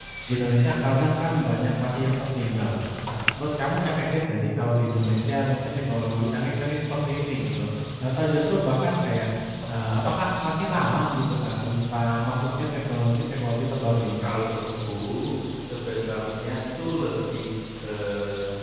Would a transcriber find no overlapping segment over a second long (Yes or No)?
Yes